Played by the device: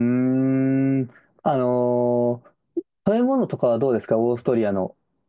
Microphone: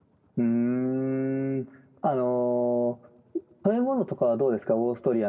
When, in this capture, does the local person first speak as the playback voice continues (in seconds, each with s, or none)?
none